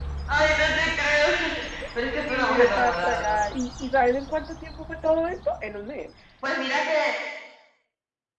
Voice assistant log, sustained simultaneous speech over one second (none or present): present